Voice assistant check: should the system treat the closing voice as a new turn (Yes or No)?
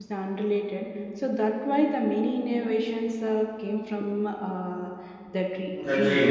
Yes